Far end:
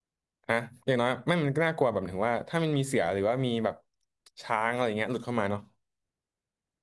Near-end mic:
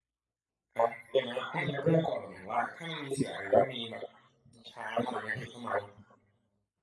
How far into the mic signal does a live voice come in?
1.5 s

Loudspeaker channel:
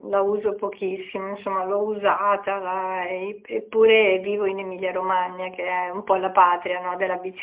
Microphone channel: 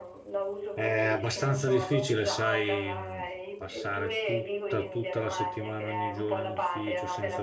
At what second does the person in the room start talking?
0.7 s

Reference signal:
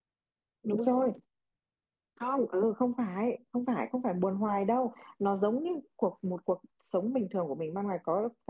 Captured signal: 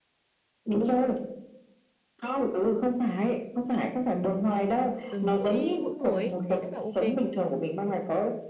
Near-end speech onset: 5.1 s

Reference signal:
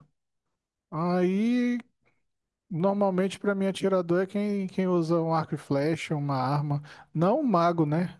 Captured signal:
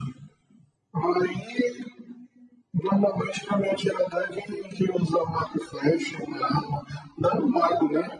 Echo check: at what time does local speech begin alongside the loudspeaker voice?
none

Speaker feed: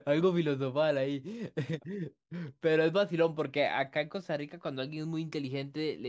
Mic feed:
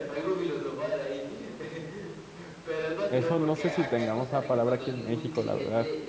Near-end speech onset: 3.1 s

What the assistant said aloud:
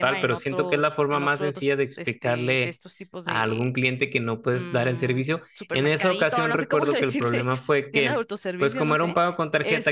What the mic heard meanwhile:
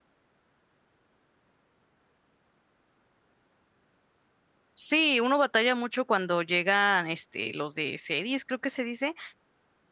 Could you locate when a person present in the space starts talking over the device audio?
4.8 s

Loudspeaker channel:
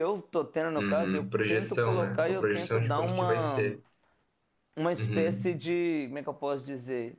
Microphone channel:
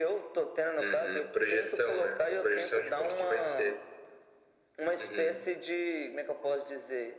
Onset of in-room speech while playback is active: none

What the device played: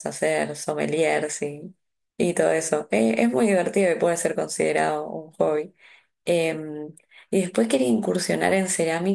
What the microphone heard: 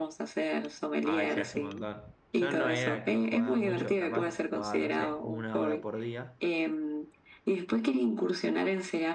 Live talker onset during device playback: 1.0 s

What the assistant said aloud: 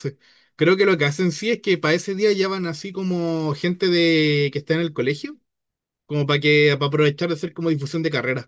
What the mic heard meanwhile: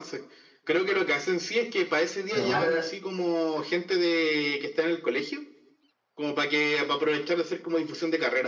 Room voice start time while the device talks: 2.3 s

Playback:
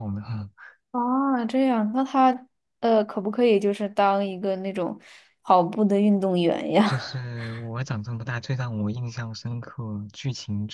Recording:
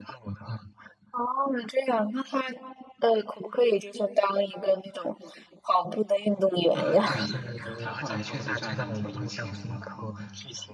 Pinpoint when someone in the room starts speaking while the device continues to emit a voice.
6.7 s

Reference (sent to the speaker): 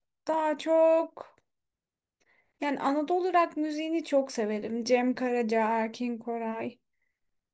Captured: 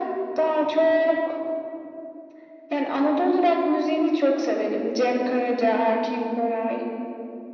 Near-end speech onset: none

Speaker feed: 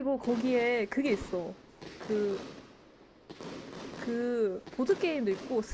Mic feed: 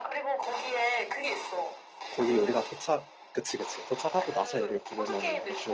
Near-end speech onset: 2.1 s

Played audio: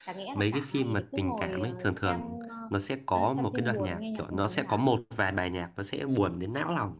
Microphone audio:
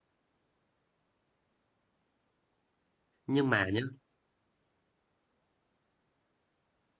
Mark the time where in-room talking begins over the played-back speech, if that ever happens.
3.3 s

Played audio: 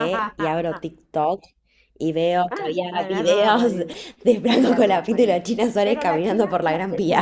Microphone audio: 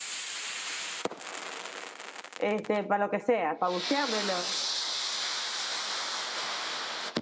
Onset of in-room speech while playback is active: 2.4 s

